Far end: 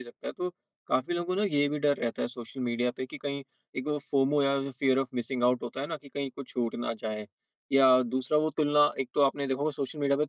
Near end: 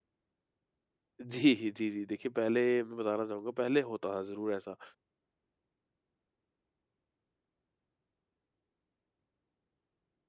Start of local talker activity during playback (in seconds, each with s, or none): 1.2 s